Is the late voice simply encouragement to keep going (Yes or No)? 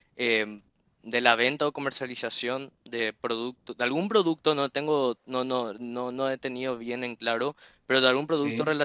Yes